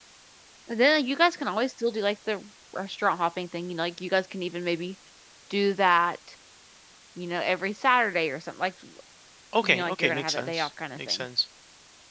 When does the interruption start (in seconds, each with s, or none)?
9.6 s